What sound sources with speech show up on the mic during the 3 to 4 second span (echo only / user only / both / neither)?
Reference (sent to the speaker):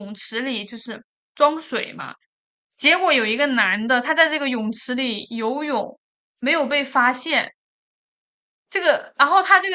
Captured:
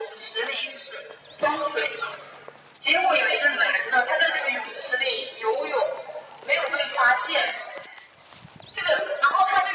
echo only